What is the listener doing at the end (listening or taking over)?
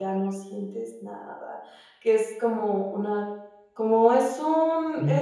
listening